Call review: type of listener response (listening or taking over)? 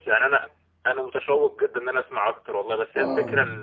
listening